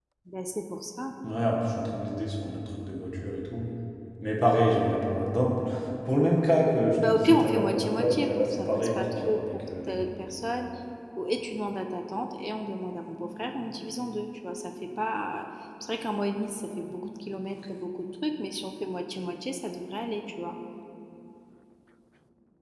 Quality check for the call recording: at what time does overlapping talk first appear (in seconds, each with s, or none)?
7.0 s